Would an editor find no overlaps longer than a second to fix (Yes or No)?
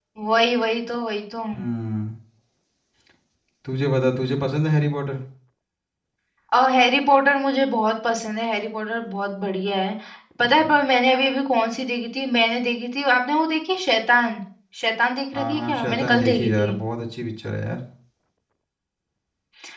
No